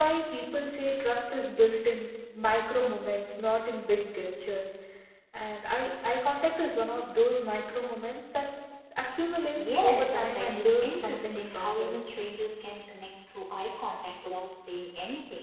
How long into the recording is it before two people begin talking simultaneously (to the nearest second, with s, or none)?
10 s